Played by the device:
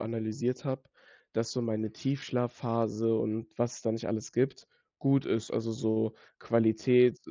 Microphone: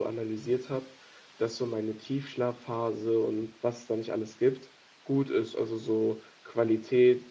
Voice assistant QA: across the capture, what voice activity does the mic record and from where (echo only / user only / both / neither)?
echo only